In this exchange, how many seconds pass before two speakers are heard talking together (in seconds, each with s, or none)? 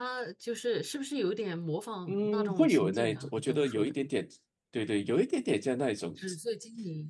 2.1 s